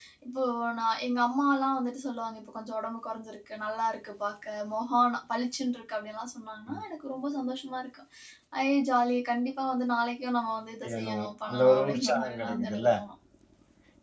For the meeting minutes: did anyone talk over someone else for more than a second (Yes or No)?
Yes